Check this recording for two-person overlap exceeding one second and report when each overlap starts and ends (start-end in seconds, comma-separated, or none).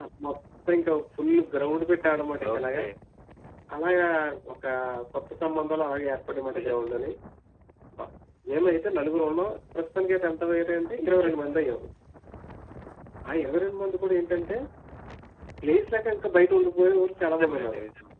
none